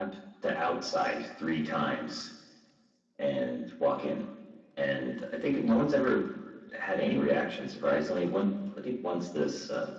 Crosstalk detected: No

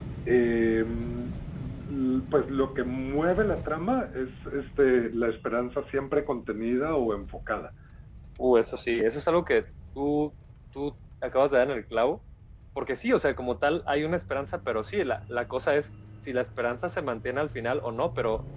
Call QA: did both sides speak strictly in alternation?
Yes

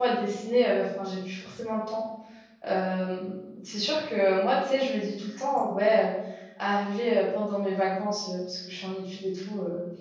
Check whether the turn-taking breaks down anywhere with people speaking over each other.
No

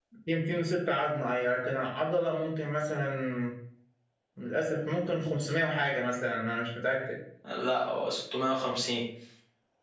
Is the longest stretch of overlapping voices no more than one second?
Yes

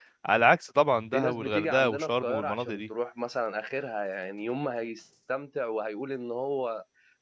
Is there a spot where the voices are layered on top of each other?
Yes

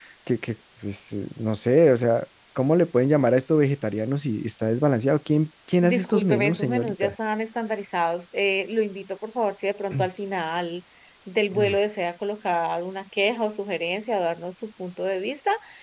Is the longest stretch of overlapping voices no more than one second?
No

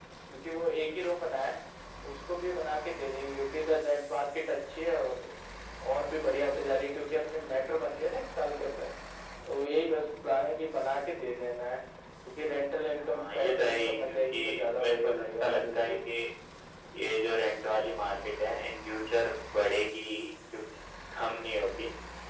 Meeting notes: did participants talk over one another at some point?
Yes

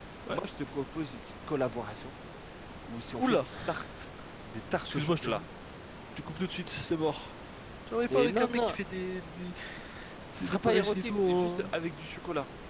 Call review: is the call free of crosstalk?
No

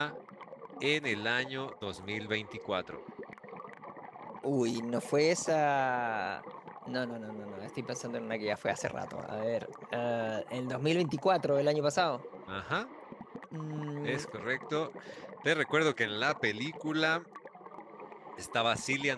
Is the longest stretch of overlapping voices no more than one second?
Yes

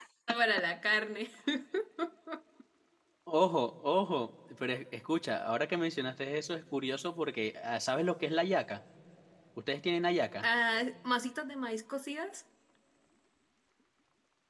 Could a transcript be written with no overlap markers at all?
Yes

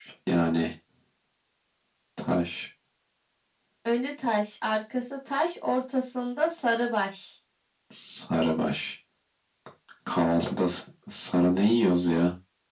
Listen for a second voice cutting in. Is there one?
No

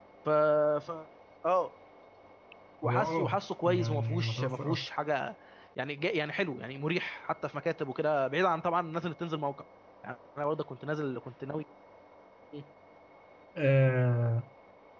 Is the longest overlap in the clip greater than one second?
Yes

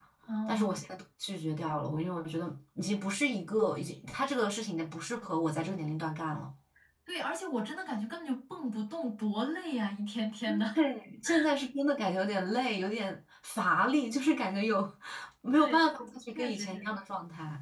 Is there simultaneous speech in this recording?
Yes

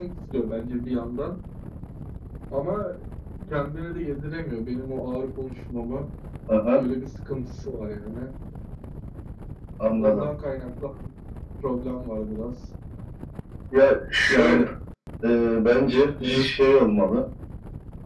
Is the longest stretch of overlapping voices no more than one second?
Yes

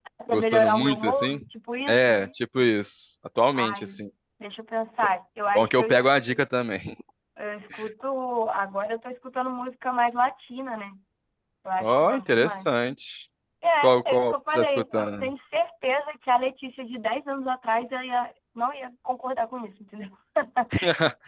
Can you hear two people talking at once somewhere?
Yes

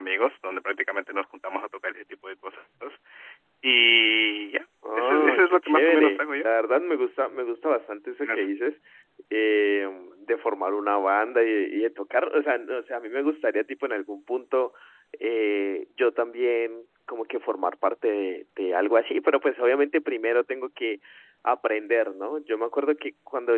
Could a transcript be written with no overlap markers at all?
No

